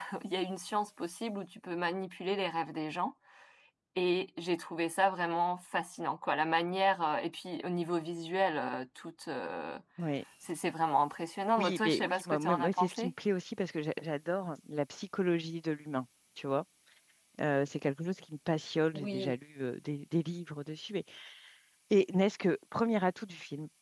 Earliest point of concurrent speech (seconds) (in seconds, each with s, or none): 11.6 s